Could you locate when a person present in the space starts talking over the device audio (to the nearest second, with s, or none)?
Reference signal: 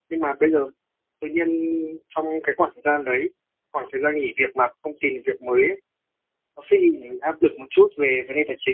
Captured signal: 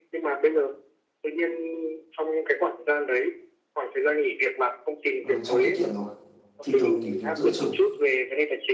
5 s